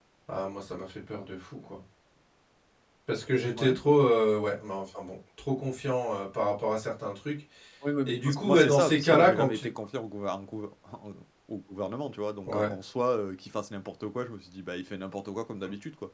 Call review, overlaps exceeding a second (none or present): present